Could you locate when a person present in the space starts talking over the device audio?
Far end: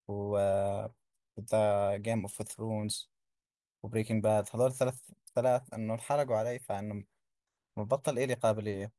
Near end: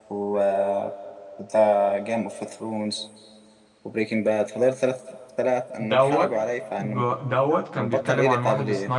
5.8 s

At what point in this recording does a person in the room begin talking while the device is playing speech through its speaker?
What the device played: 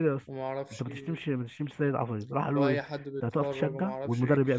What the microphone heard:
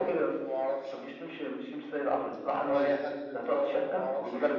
none

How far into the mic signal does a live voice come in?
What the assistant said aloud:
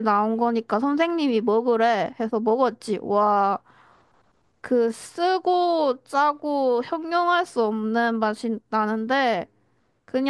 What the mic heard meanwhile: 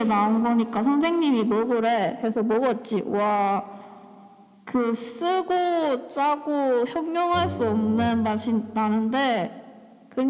7.3 s

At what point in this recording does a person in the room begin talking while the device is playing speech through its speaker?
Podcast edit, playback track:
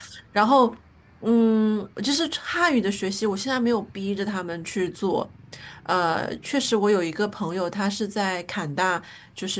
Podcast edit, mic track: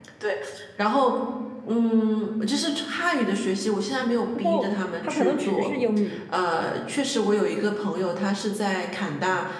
4.4 s

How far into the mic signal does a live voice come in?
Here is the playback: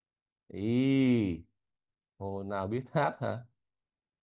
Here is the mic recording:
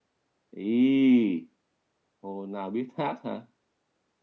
none

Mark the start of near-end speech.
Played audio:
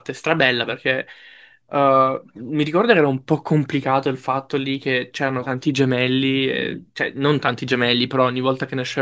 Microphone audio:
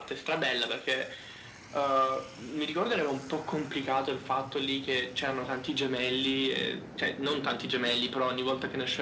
none

